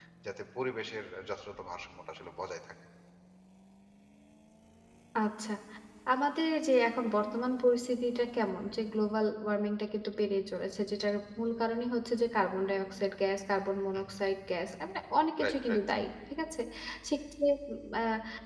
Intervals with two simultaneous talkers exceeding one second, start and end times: none

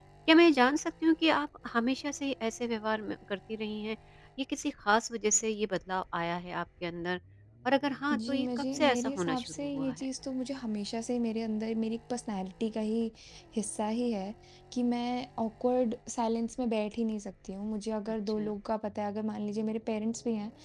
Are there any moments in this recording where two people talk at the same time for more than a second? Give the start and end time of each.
8.1-9.9

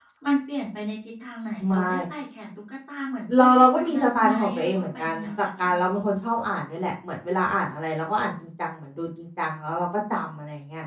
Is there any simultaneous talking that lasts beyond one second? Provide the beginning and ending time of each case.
3.4-5.4

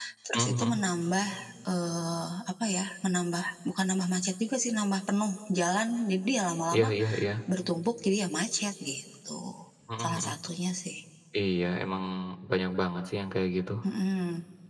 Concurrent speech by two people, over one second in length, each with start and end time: none

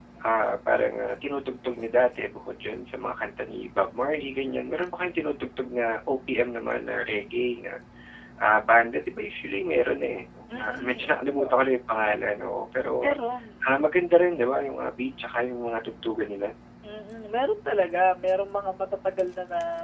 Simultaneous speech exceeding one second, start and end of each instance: 10.5-11.7

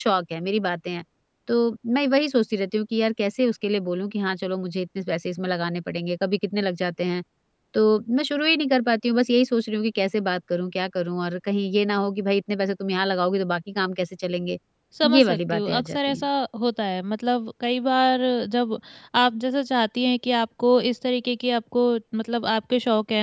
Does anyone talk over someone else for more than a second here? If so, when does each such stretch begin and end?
15.0-16.2

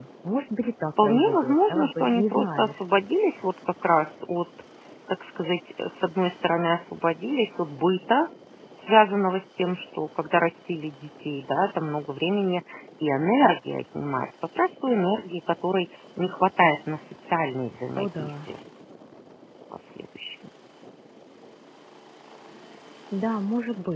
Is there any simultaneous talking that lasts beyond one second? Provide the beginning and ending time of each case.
1.0-2.8

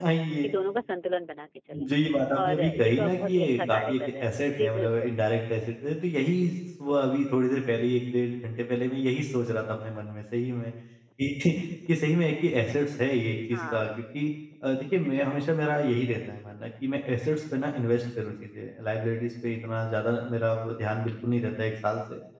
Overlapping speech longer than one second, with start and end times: 2.3-4.9

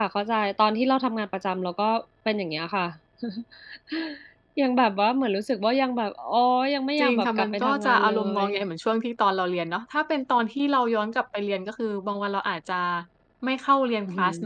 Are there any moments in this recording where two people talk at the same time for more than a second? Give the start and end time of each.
7.0-8.4

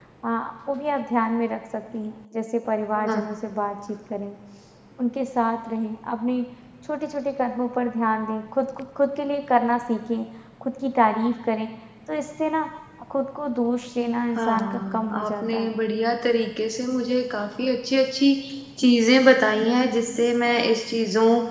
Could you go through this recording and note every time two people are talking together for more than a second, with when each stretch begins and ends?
14.4-15.8

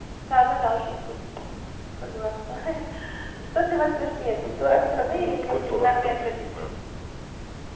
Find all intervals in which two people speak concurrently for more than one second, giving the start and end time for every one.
5.1-6.7

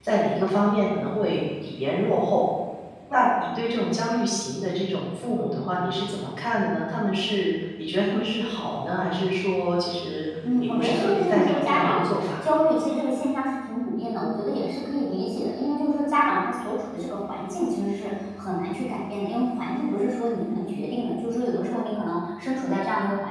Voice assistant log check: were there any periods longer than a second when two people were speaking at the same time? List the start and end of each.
10.6-12.0

